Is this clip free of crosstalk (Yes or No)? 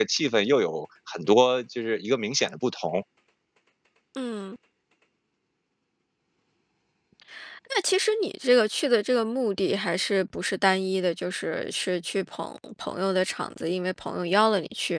Yes